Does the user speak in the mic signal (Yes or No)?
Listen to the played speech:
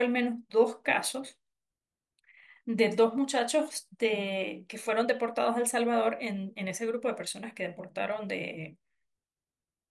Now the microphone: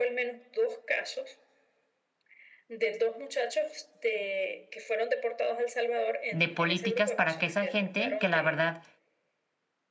Yes